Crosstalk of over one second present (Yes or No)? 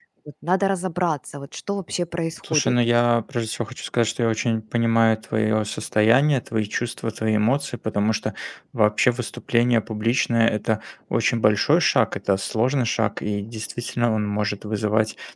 No